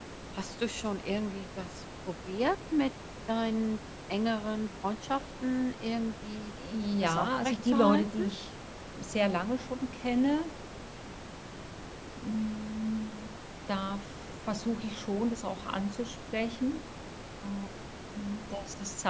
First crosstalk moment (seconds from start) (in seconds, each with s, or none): 7.0 s